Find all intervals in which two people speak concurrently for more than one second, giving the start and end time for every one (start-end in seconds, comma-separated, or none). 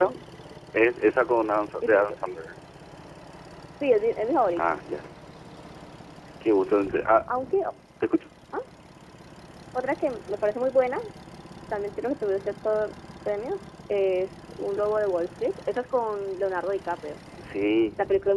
none